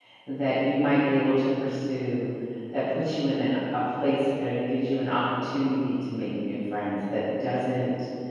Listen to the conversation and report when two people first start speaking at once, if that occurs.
none

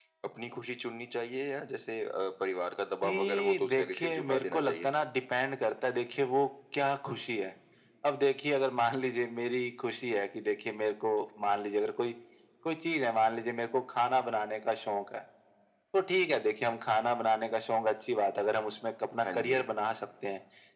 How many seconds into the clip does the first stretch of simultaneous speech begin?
3.0 s

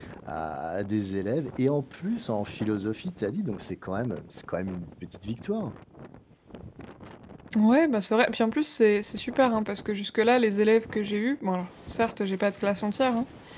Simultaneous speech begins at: none

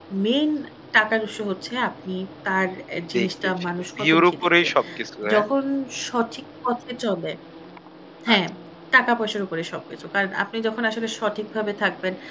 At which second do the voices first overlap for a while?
3.1 s

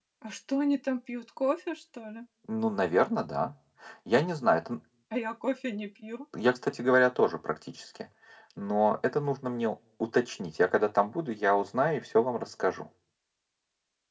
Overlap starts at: none

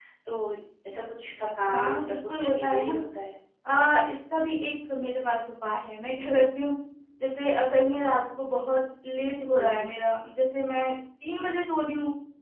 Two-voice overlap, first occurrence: 1.6 s

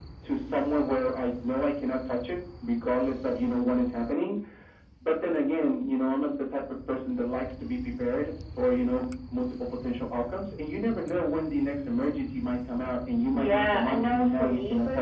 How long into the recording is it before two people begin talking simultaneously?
13.3 s

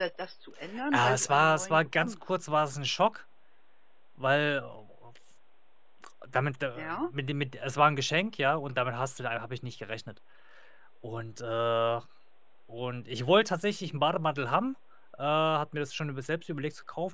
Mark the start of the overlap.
0.9 s

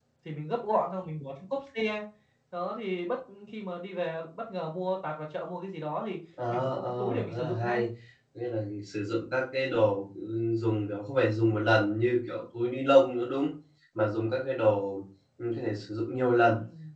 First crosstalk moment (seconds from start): 6.4 s

